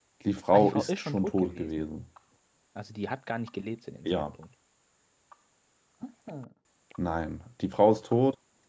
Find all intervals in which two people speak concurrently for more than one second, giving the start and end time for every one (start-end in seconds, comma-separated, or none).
0.5-1.9